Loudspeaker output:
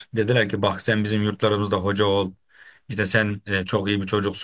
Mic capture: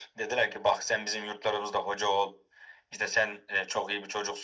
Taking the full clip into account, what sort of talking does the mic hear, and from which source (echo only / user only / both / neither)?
echo only